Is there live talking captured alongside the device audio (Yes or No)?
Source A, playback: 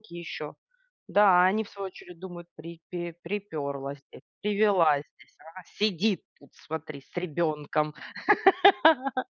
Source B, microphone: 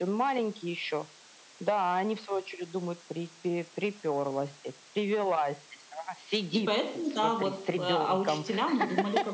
Yes